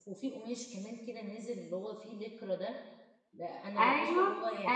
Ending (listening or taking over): taking over